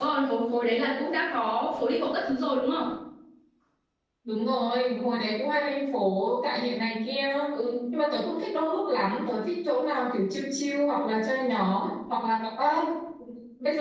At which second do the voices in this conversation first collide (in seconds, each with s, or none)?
none